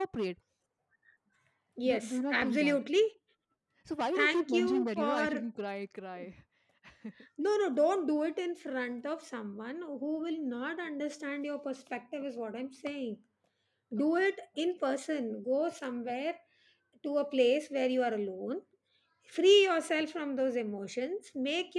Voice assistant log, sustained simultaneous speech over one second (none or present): present